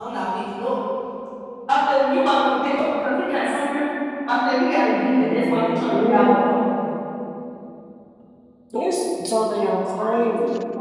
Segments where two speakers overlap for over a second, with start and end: 5.2-6.5

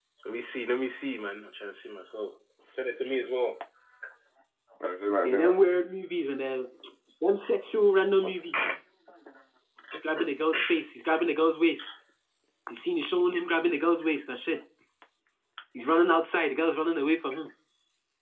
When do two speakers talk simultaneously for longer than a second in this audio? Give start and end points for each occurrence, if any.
none

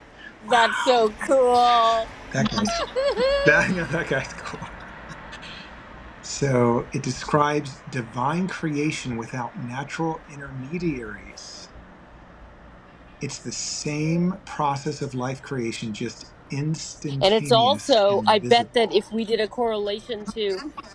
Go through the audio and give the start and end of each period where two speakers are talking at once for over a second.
17.2-19.0

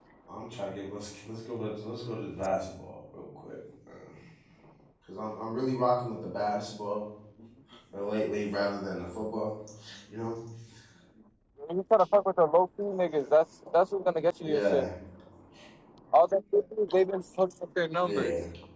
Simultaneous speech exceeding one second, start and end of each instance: none

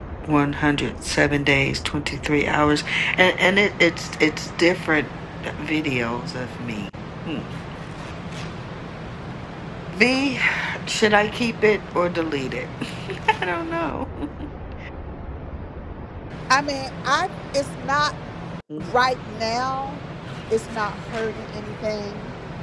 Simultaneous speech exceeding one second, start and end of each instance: none

